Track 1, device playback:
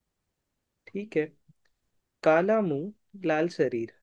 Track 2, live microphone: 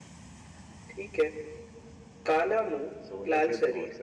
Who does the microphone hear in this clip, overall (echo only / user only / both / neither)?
both